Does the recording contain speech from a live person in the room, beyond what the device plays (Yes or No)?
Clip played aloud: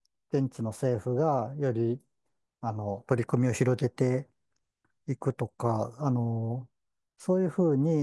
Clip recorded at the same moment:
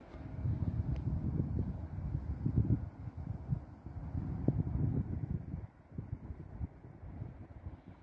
No